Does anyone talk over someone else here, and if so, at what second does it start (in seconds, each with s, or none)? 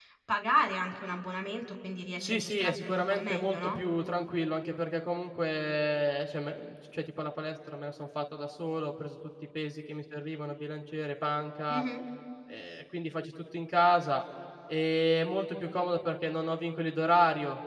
2.2 s